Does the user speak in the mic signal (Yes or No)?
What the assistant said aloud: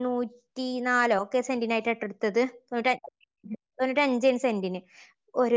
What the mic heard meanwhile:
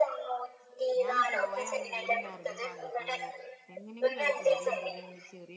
Yes